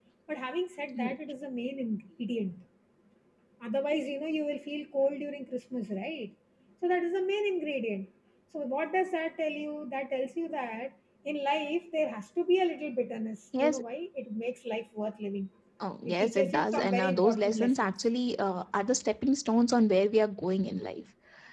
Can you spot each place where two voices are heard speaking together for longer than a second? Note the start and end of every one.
16.1-17.9

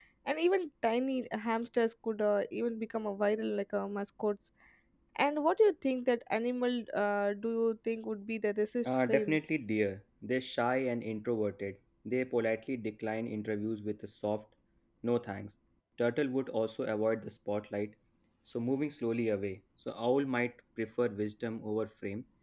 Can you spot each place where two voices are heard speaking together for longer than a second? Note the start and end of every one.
none

